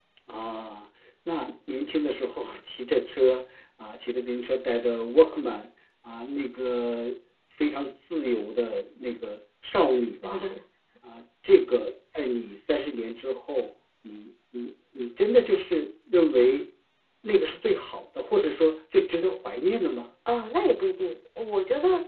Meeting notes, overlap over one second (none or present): none